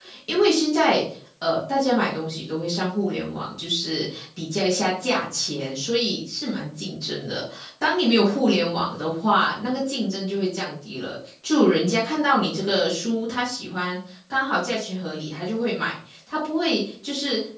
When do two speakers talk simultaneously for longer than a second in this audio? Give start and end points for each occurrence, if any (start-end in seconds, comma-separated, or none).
none